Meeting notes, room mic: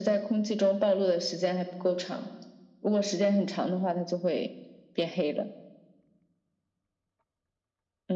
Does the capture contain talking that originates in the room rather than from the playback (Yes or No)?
No